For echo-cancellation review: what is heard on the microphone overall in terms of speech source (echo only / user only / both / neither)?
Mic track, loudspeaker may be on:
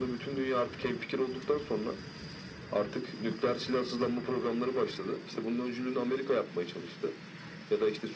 echo only